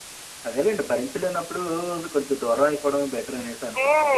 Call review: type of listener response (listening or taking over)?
taking over